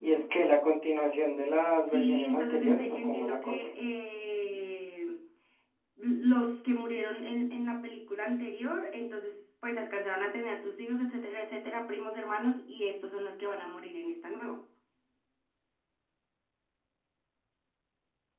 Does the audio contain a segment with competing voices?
Yes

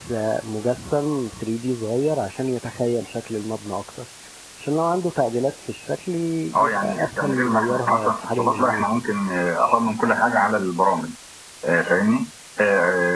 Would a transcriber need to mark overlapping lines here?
Yes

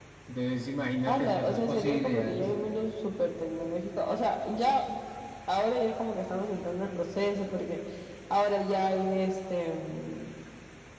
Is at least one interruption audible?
Yes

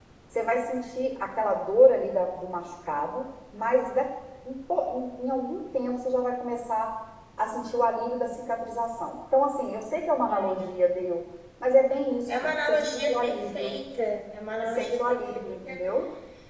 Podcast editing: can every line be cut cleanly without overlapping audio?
No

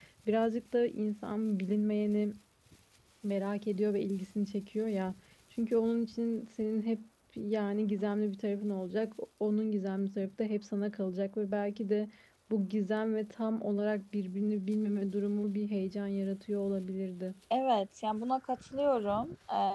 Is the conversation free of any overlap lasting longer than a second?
Yes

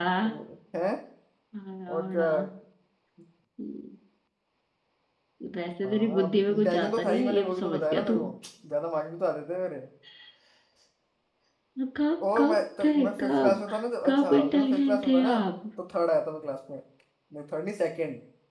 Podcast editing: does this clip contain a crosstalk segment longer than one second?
Yes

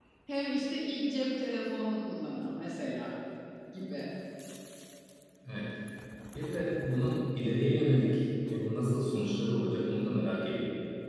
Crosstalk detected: No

